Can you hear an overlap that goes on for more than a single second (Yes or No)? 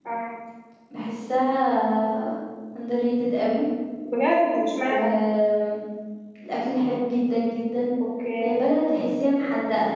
No